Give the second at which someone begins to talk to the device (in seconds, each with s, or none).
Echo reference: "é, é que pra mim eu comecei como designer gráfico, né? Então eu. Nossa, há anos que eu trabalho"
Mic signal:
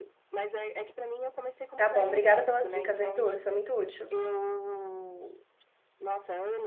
1.7 s